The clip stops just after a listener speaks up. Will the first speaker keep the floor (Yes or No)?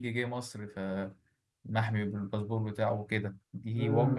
No